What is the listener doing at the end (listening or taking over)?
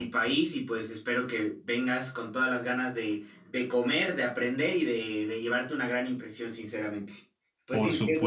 taking over